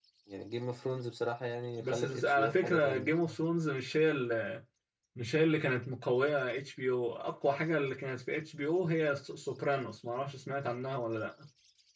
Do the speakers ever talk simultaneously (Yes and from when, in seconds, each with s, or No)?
Yes, from 1.8 s